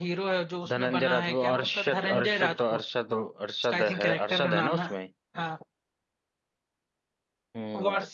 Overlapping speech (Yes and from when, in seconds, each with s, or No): Yes, from 0.7 s